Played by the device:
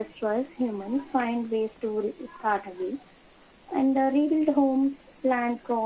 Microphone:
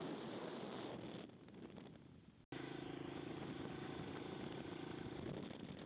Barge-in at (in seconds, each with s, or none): none